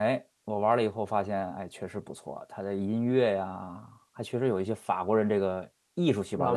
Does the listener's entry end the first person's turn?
No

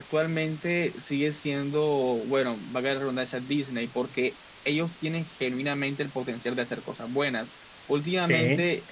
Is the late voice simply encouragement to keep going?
Yes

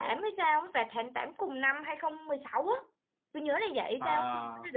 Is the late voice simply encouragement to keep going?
Yes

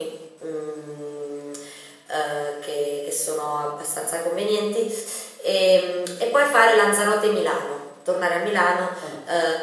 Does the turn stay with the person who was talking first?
Yes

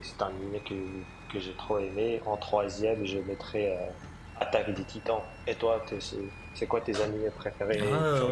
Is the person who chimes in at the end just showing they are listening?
No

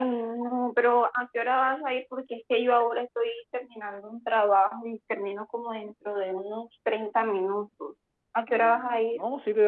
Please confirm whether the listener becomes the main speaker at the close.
Yes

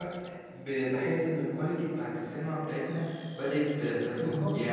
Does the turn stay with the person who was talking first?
No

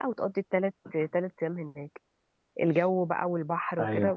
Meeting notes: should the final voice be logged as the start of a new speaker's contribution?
No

